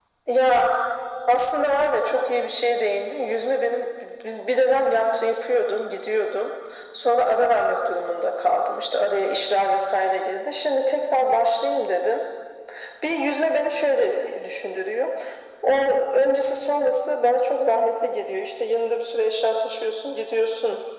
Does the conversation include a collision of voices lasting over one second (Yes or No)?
No